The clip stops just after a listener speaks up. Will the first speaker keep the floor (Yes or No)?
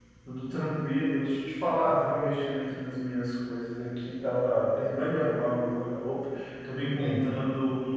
Yes